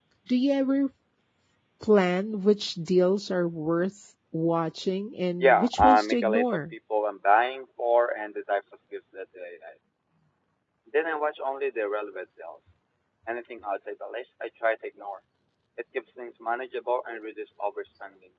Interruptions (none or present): present